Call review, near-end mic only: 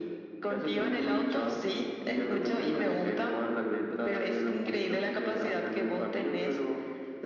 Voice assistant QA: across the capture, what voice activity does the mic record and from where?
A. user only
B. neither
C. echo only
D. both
C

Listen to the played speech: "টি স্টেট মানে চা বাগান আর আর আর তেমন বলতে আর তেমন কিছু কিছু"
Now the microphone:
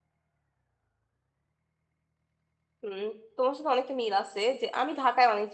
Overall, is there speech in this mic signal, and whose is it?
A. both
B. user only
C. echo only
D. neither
B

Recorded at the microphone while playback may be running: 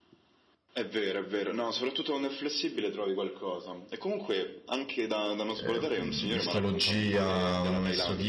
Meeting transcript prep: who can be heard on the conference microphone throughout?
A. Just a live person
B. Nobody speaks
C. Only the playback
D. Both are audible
D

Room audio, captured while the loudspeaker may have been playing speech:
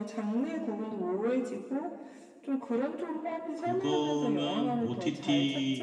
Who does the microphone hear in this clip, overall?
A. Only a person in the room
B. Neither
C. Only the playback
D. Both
D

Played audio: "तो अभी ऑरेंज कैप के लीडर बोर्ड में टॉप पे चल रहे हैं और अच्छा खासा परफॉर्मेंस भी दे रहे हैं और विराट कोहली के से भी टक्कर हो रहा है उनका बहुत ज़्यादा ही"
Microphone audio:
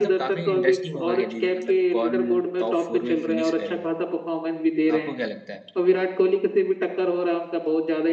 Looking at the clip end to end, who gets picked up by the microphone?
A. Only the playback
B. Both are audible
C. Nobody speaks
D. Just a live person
B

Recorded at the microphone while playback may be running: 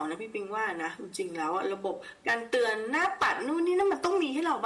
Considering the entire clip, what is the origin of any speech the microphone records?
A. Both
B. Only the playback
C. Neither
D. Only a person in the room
B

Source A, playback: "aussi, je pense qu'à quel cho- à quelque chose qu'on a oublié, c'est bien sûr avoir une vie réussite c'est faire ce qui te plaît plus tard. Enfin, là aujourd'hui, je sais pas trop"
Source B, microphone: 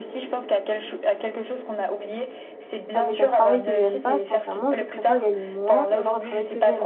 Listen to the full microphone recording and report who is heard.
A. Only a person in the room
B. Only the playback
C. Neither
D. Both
D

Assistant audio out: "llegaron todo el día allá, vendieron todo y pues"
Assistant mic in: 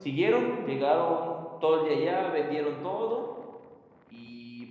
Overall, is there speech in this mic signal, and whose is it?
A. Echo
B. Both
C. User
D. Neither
A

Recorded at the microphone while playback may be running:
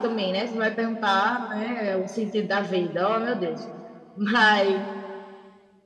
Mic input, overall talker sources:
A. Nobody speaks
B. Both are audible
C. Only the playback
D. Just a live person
C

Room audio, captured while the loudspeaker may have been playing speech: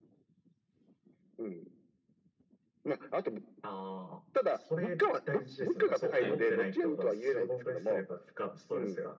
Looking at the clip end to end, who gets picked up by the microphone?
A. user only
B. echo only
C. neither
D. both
D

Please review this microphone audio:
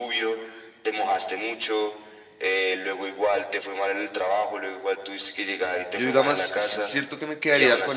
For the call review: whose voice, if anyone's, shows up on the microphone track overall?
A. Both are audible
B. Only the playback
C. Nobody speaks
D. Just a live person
A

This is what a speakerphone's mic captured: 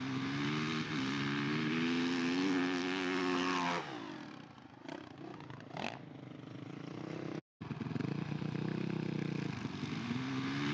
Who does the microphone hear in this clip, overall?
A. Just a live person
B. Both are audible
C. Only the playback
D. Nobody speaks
D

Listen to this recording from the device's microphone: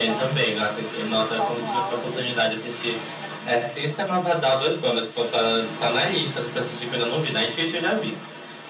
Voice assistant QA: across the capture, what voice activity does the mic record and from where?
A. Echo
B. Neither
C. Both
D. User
A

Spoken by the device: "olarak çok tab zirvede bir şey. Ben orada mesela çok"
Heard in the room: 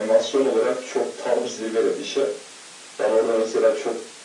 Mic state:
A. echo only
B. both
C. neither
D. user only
A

